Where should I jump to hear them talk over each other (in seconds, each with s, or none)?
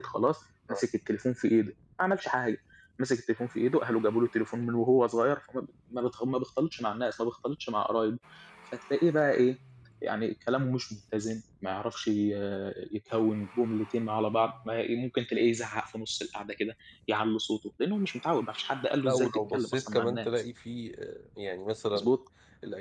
19.0 s